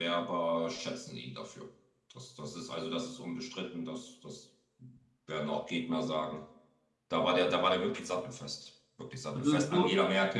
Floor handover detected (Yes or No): No